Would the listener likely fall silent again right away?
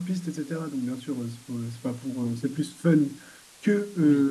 Yes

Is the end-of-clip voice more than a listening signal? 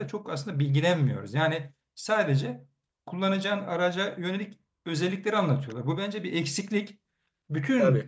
No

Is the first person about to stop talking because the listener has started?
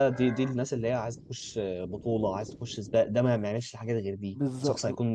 Yes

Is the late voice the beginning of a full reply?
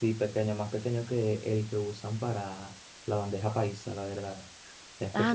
Yes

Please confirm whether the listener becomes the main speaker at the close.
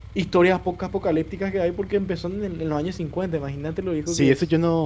Yes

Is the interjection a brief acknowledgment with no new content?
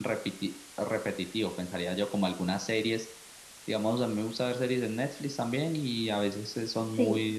Yes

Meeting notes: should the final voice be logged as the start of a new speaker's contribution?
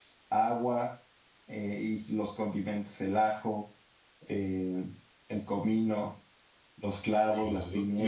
Yes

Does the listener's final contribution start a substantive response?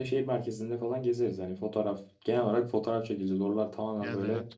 No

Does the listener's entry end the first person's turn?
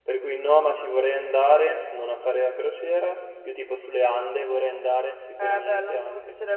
Yes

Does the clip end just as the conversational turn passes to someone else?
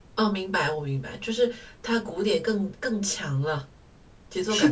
Yes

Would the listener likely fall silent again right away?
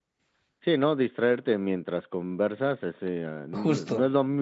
Yes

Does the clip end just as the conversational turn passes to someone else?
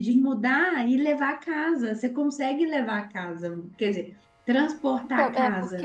Yes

